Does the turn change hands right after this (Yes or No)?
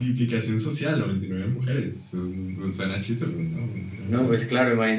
Yes